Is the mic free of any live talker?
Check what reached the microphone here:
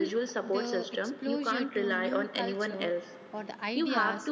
No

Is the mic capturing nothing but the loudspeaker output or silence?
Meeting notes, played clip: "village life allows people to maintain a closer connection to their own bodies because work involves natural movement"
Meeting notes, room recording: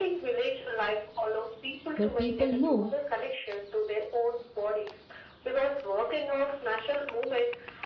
No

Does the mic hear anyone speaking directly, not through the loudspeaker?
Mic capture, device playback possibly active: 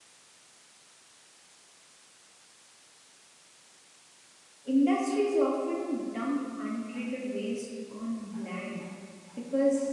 Yes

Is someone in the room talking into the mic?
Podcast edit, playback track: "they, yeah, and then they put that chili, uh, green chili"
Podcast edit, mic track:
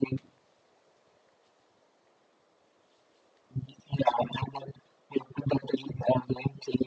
No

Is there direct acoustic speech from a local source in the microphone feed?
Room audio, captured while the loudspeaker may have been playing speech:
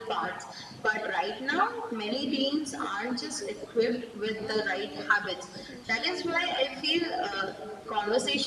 Yes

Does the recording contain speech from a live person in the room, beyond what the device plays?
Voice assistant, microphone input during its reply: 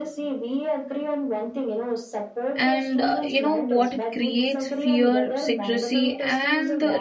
Yes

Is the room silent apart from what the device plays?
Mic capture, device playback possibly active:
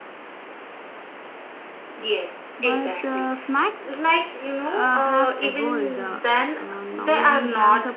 No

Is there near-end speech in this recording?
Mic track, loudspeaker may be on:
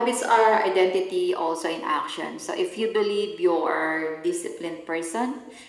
No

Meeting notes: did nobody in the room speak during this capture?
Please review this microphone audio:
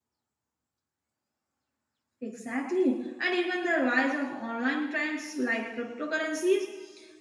No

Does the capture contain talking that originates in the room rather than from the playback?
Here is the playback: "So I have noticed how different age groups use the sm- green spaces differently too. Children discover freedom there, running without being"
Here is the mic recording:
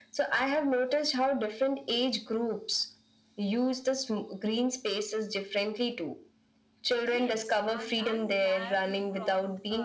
Yes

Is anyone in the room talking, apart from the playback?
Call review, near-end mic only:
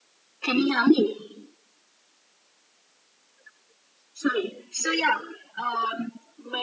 No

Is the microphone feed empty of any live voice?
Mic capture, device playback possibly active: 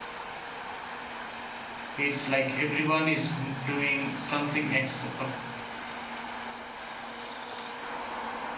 No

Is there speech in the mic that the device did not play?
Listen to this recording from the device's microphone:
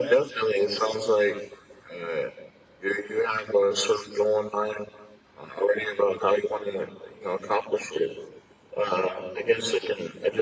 No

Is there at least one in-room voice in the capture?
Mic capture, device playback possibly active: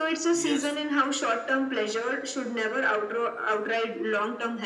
Yes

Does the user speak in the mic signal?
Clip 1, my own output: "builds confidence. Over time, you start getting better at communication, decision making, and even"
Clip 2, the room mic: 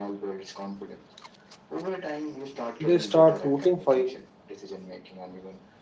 Yes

